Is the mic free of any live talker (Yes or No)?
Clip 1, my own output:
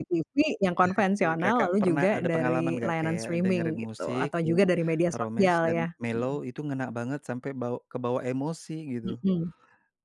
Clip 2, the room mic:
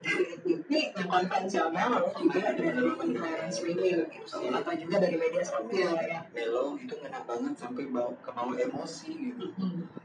Yes